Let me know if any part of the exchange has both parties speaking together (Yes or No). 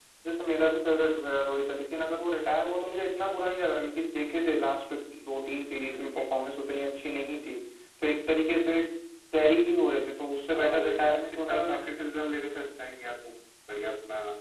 Yes